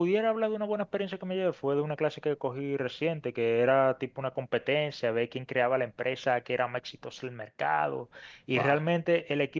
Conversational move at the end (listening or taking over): listening